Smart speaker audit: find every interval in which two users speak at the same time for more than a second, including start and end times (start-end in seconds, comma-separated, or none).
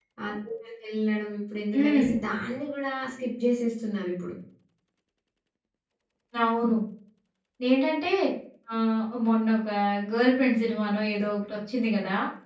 none